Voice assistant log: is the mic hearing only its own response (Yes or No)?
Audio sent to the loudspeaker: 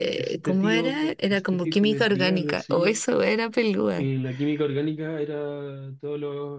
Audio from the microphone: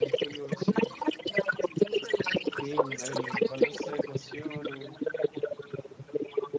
No